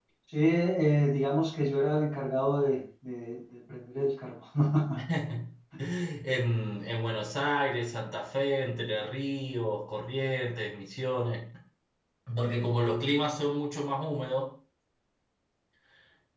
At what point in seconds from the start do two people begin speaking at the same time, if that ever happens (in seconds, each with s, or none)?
none